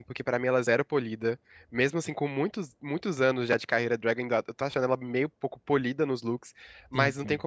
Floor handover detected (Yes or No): No